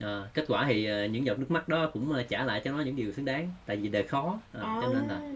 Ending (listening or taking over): listening